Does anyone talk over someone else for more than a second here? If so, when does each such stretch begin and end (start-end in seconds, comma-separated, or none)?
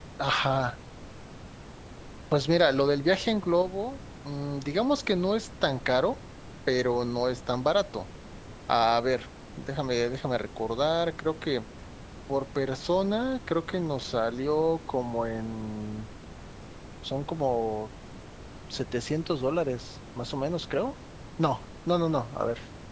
none